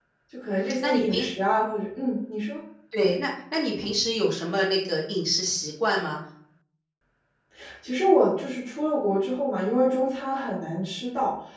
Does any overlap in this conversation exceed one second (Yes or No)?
No